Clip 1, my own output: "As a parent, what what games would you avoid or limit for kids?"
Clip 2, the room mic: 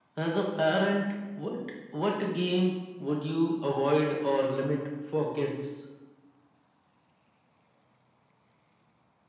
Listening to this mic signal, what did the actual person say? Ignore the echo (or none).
none